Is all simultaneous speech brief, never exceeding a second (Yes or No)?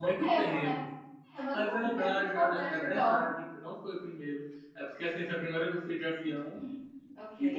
No